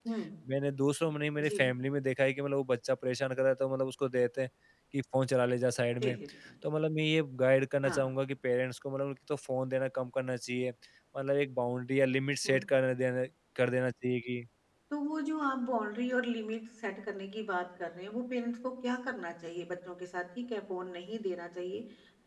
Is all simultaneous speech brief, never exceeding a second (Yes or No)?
Yes